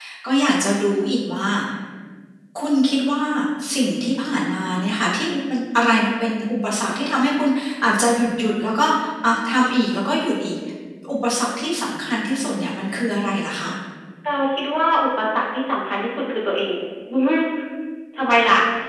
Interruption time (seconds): none

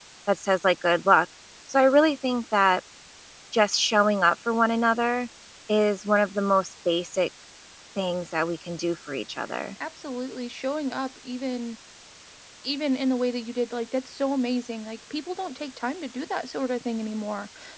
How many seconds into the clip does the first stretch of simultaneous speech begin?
none

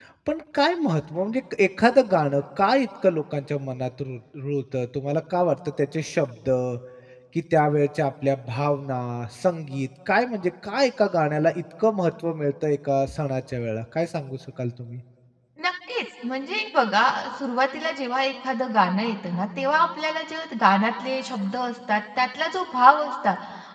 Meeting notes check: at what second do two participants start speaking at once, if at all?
none

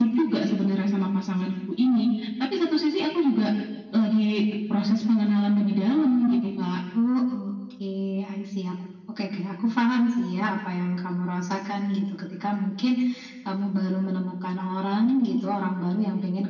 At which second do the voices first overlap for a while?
none

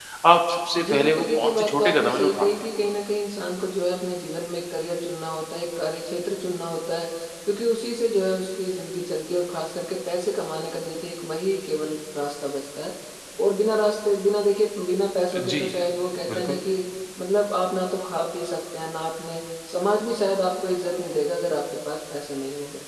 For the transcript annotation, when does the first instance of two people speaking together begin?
0.8 s

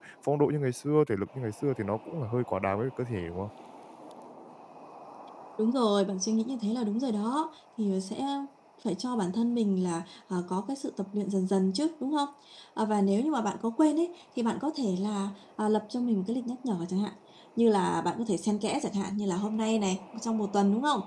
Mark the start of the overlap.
none

